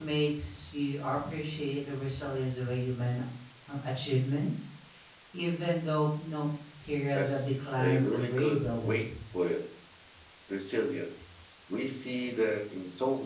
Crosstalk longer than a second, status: present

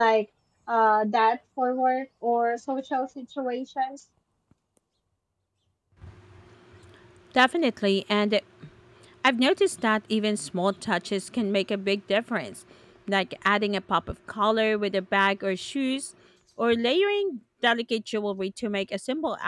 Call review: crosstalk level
none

